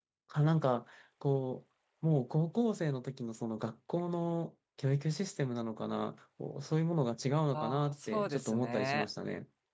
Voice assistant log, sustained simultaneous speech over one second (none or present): present